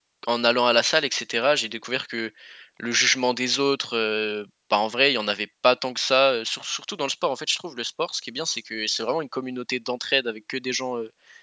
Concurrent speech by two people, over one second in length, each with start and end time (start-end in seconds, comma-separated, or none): none